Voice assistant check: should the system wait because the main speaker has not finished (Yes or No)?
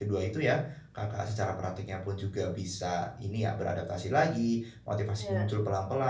Yes